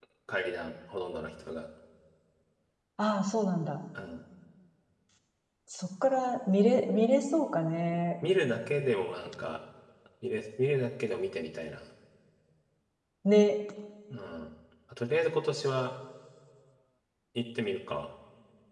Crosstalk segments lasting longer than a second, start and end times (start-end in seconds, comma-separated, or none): none